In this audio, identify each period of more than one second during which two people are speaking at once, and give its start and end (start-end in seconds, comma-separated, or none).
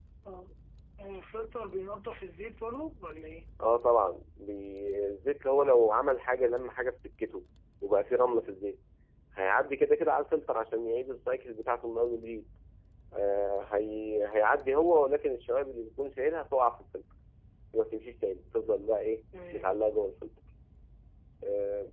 none